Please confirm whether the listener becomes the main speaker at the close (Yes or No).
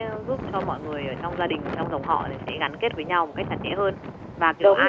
No